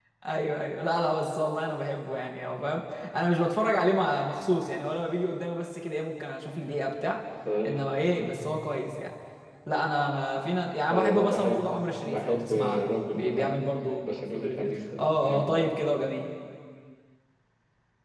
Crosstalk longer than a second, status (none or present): present